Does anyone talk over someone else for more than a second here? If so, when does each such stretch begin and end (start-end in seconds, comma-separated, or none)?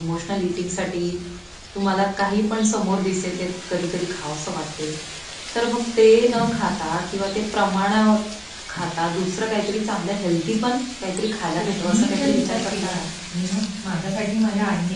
11.6-13.0